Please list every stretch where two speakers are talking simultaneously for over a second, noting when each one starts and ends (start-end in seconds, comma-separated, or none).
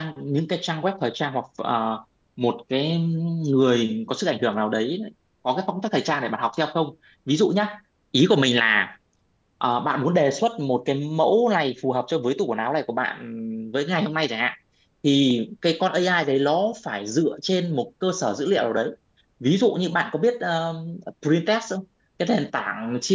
none